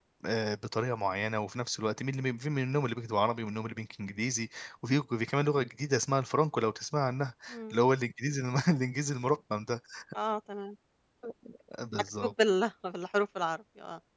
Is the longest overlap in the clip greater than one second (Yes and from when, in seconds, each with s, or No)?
No